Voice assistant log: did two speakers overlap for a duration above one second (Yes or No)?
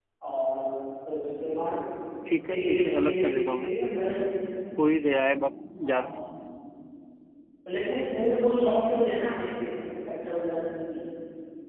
Yes